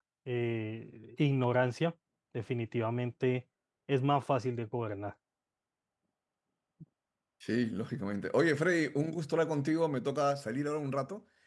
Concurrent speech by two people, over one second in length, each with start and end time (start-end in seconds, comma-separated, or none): none